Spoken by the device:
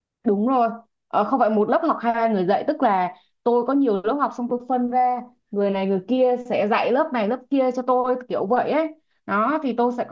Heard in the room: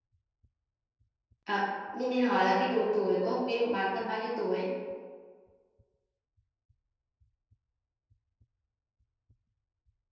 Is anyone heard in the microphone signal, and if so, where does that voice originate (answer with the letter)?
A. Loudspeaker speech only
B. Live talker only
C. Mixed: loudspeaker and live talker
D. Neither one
B